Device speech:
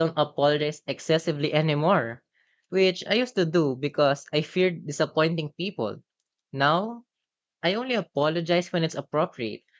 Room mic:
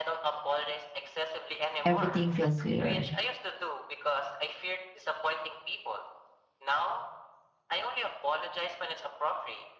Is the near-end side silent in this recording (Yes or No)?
No